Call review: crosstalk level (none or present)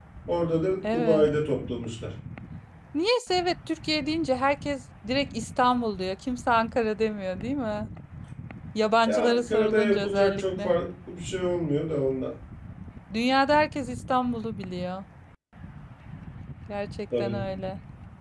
present